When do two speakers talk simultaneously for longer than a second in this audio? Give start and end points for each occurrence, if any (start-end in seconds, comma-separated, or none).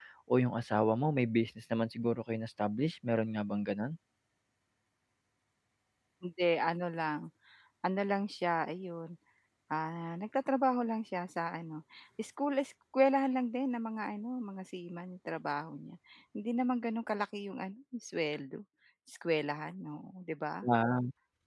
none